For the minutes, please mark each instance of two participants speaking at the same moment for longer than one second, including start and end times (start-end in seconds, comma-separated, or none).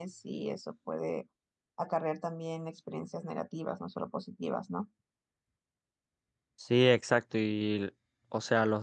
none